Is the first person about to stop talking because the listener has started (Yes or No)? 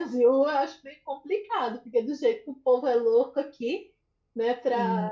Yes